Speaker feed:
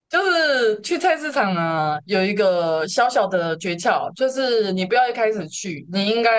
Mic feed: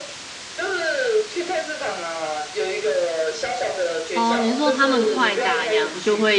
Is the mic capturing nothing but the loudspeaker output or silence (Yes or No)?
No